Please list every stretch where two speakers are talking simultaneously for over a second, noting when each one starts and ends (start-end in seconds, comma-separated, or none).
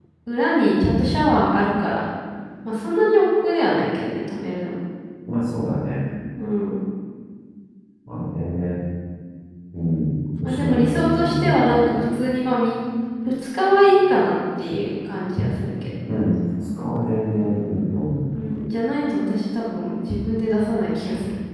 10.4-12.0